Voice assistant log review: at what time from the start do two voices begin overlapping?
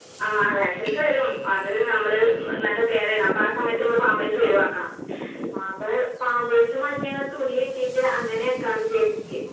none

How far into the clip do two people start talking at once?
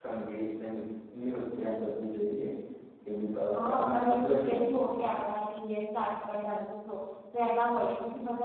4 s

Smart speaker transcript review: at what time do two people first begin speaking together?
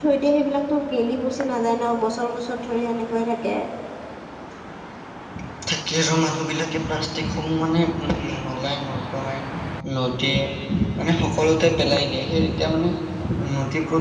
none

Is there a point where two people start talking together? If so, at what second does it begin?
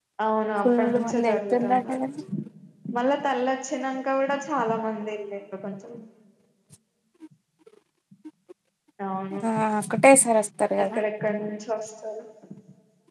1 s

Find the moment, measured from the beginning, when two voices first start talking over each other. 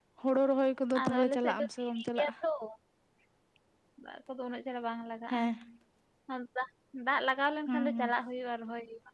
1 s

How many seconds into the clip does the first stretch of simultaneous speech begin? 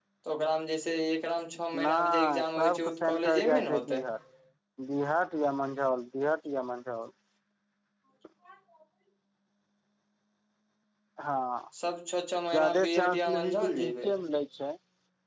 2 s

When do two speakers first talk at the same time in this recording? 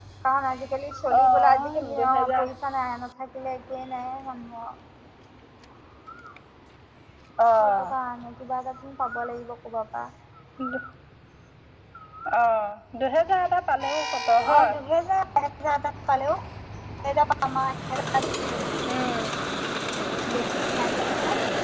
1 s

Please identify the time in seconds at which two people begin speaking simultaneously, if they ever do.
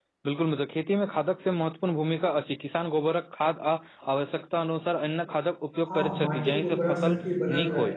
6 s

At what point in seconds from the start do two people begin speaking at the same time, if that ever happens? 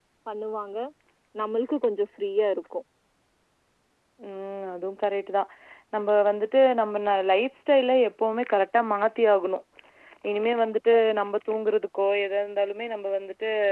none

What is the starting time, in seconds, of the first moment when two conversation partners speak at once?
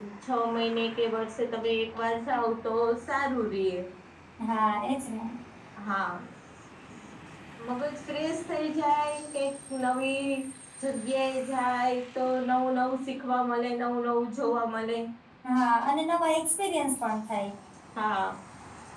none

